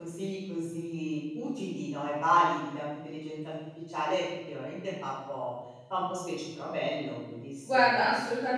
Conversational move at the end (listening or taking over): taking over